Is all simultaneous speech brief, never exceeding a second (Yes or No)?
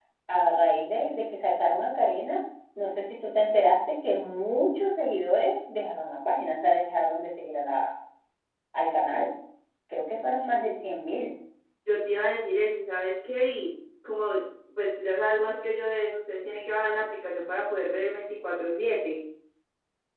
Yes